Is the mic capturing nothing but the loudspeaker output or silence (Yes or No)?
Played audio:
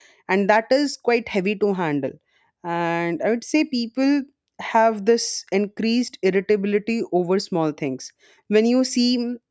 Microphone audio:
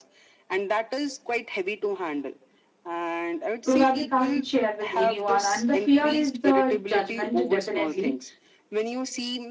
No